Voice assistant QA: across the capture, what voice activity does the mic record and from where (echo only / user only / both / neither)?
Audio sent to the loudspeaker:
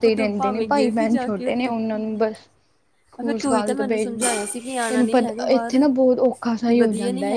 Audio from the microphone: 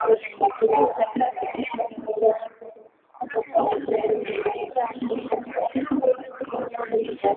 echo only